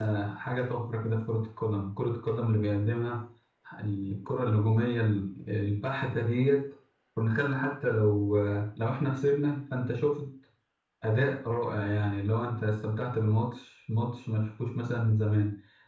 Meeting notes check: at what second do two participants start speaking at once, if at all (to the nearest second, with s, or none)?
none